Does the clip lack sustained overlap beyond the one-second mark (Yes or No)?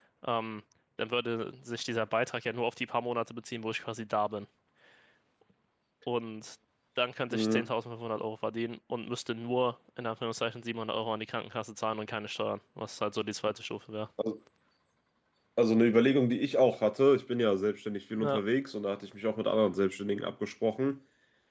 Yes